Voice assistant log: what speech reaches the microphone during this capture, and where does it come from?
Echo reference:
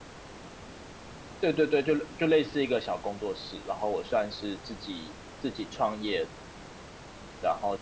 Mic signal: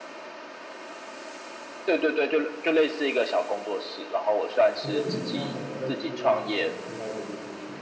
both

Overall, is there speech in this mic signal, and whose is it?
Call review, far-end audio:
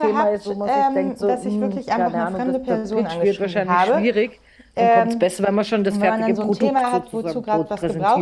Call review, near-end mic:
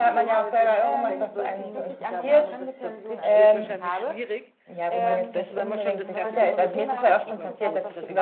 both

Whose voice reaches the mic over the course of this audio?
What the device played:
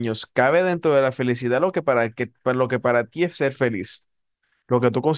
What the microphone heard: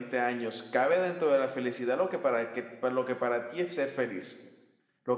echo only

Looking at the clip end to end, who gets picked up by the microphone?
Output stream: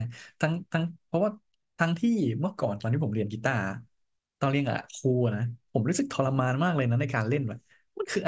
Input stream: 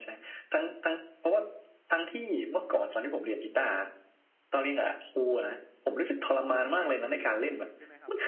both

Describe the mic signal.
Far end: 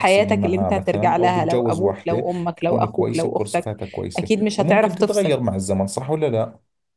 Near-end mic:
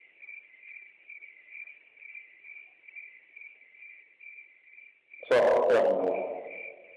user only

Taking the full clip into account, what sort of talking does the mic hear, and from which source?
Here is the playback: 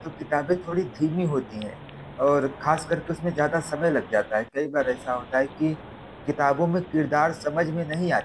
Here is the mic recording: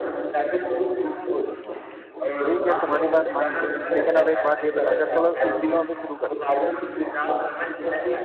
both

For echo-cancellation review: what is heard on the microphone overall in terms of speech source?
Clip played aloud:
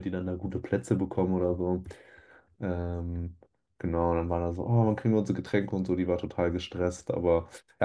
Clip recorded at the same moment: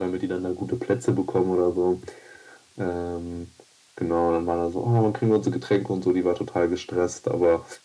echo only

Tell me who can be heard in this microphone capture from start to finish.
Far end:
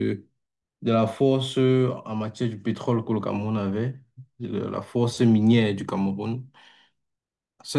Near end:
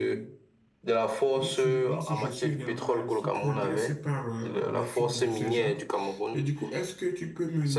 both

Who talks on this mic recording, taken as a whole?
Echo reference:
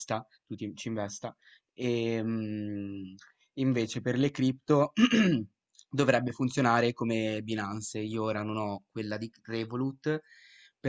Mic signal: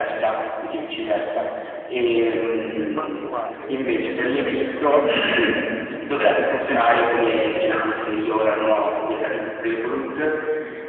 both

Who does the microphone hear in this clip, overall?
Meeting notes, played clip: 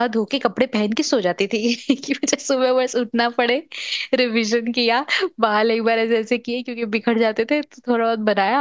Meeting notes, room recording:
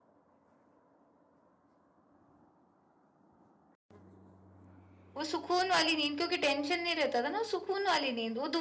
user only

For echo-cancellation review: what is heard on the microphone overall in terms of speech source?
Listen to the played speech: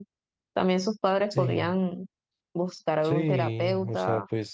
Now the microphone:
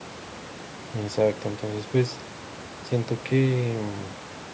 user only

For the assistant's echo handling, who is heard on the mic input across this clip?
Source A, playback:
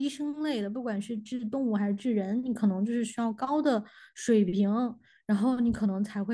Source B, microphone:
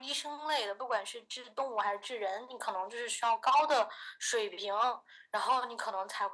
echo only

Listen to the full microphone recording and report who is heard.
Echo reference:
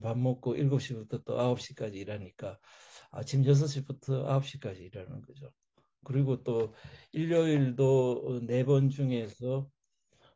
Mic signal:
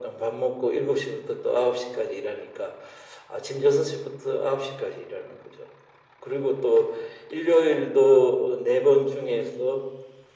echo only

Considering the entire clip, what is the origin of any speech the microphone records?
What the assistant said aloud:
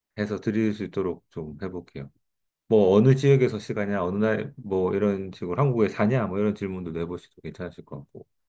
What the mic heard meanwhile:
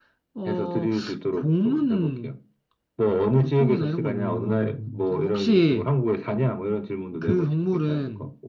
both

